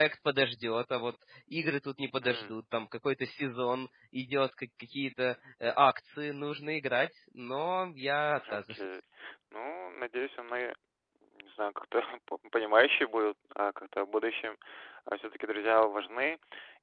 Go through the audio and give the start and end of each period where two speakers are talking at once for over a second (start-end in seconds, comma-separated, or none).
none